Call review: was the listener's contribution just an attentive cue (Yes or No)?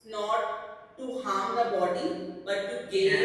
Yes